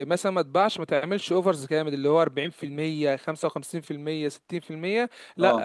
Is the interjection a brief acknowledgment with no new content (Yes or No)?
Yes